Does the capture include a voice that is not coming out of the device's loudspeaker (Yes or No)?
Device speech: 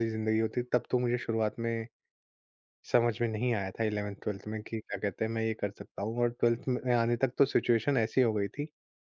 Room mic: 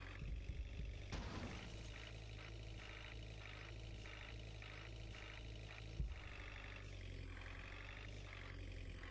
No